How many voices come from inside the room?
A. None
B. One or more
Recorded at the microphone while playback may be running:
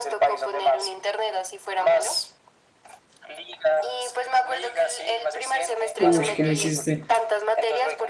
B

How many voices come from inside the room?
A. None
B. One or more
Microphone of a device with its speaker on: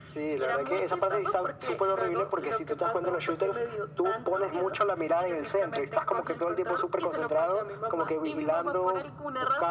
A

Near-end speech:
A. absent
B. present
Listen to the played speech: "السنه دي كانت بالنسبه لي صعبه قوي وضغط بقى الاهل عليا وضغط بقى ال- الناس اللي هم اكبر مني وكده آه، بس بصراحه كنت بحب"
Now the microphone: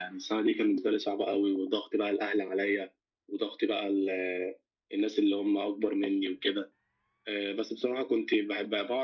A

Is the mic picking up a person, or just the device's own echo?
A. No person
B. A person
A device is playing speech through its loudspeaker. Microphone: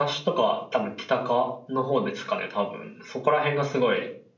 B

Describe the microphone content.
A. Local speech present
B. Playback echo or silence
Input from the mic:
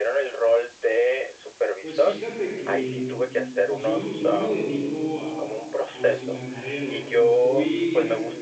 A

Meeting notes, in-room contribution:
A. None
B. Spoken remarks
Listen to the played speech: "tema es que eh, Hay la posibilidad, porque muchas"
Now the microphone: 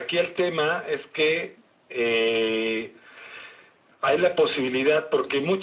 A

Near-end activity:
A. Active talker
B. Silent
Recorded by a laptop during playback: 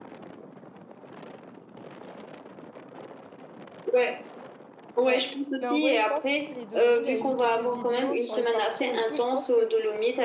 A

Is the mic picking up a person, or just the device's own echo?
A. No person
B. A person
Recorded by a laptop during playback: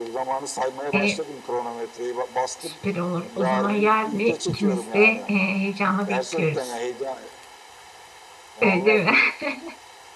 B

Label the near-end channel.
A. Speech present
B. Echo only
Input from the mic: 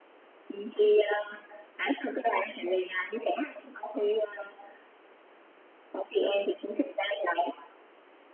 B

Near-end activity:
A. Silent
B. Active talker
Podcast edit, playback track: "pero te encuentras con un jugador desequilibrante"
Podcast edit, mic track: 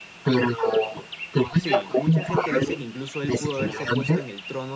B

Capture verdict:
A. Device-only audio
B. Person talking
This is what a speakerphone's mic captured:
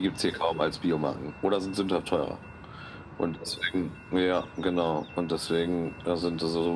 A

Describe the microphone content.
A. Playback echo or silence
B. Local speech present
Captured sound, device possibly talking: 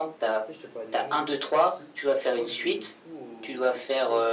B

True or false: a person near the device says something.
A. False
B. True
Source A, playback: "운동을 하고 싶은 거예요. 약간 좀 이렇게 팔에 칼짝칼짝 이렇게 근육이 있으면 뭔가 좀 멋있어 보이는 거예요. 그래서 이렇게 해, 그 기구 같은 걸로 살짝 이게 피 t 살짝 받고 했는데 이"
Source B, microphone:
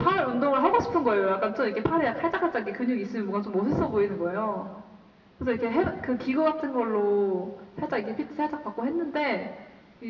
A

